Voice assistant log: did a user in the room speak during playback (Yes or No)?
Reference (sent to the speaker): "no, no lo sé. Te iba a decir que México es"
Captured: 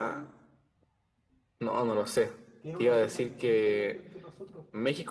Yes